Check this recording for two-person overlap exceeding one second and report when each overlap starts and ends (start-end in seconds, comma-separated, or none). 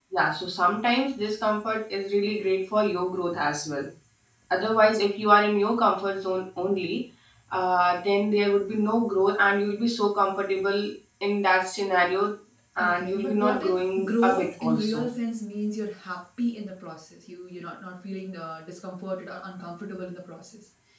12.8-15.1